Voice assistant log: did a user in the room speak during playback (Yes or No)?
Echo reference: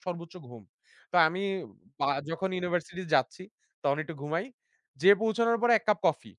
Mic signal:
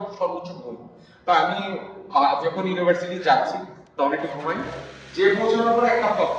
No